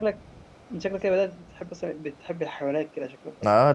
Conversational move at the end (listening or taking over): taking over